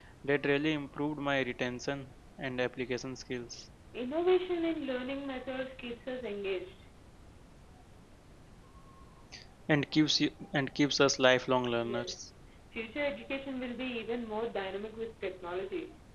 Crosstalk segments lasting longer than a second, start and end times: none

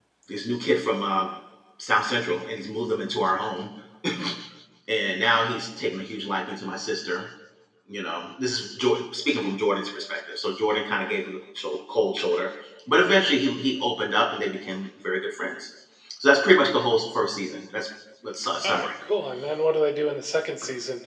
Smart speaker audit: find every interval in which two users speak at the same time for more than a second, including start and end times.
none

